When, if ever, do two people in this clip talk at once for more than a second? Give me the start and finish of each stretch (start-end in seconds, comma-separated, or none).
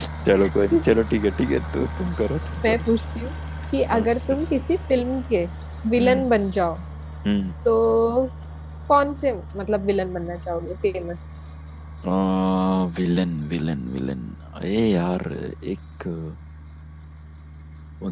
none